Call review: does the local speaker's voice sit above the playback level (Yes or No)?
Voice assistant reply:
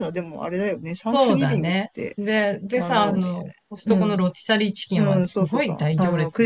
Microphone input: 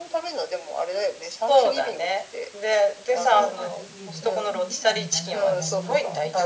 No